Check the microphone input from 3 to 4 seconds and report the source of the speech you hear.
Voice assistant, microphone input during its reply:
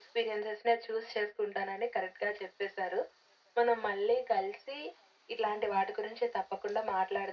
echo only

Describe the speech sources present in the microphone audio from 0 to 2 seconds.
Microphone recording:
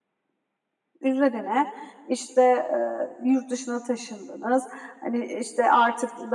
user only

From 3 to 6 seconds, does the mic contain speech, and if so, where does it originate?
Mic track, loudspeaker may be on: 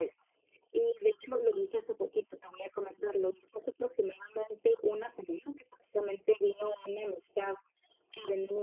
echo only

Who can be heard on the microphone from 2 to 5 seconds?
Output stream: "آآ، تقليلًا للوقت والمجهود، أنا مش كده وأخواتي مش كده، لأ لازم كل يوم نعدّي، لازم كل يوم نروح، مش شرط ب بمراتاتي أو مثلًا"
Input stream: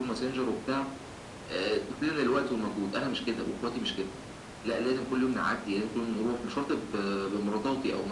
echo only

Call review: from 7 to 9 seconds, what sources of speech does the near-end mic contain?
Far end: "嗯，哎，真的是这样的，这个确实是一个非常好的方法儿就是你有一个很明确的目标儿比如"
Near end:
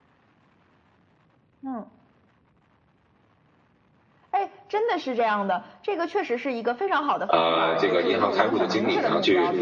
both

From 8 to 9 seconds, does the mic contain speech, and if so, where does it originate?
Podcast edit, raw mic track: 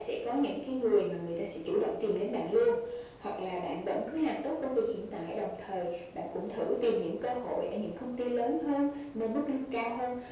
echo only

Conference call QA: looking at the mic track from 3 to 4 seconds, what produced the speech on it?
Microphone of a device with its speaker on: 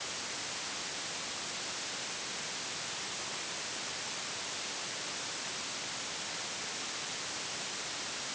neither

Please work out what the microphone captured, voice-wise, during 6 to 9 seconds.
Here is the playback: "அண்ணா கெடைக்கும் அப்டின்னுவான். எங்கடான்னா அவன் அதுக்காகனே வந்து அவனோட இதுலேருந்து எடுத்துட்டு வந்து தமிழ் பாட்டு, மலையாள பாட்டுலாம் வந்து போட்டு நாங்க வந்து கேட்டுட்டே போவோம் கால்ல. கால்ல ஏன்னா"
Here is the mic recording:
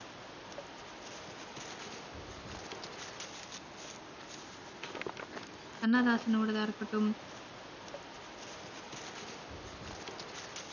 user only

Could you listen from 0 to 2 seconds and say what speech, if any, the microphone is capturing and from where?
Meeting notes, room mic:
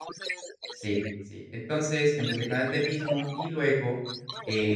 both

